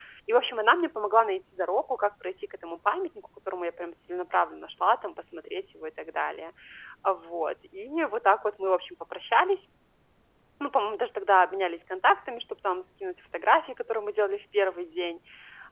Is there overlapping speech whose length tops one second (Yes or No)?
No